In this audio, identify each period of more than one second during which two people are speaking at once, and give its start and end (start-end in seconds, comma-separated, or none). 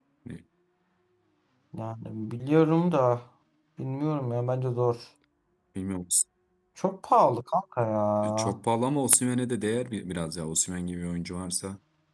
none